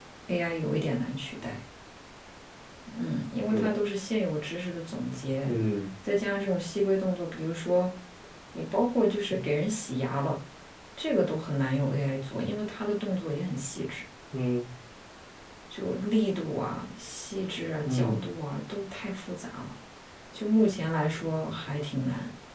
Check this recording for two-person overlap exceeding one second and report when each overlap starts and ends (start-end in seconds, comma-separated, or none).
none